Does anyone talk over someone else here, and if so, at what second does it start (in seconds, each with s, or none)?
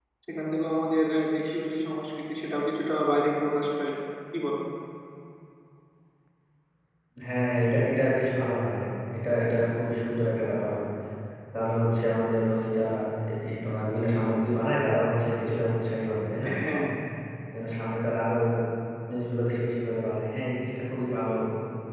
none